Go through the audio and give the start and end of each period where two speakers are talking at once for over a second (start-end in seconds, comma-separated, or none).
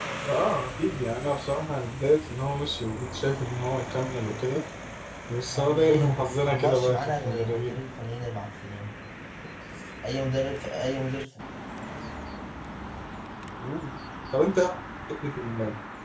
5.5-7.8